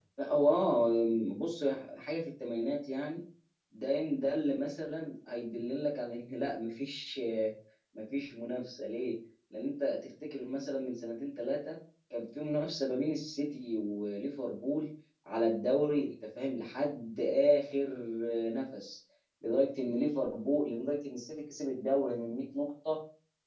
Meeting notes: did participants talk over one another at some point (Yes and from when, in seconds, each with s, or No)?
No